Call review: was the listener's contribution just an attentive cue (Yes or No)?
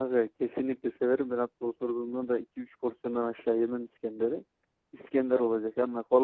Yes